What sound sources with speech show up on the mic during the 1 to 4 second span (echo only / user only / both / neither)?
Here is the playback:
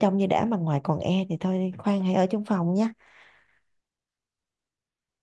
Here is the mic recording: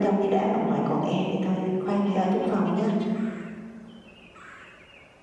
echo only